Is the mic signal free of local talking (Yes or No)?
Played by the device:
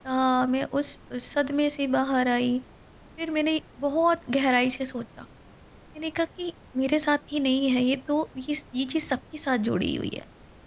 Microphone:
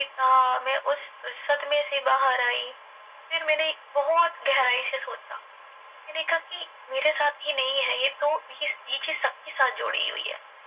Yes